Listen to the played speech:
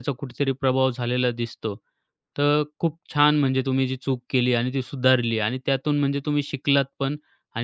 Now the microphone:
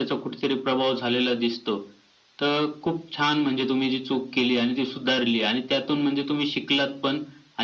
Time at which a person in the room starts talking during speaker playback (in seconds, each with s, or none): none